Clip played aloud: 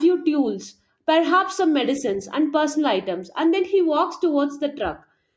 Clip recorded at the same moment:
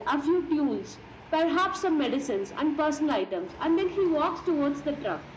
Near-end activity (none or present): none